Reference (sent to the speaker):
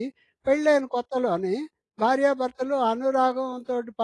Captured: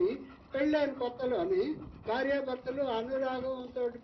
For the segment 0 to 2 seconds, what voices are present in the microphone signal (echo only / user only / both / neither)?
echo only